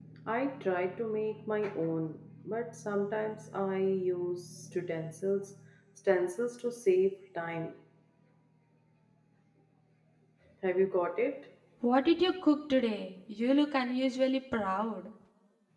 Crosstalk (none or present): none